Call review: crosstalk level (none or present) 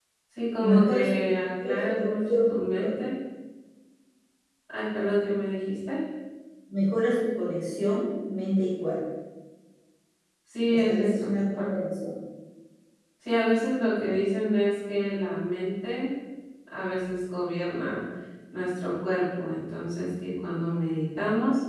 present